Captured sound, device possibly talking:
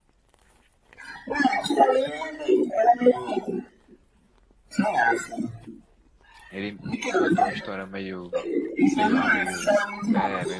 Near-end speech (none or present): present